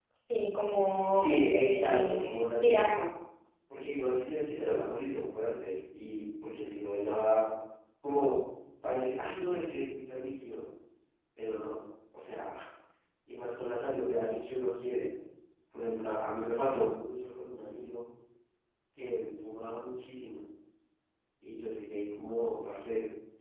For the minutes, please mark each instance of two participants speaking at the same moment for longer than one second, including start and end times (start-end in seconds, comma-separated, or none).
1.1-3.0